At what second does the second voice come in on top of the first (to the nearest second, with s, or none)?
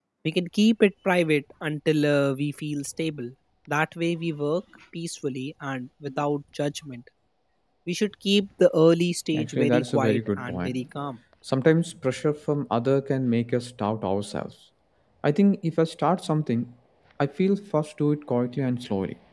9 s